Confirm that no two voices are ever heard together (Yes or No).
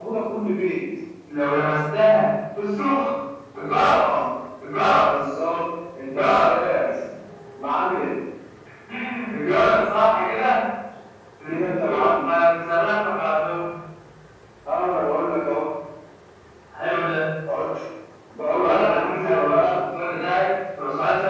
No